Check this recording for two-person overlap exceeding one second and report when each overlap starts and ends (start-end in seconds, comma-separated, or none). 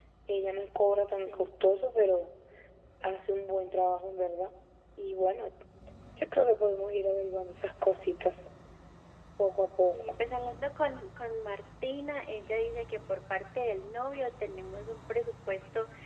none